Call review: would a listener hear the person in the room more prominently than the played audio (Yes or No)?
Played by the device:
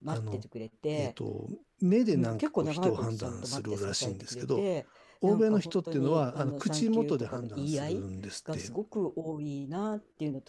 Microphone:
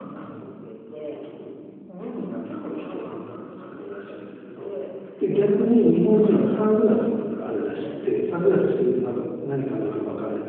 Yes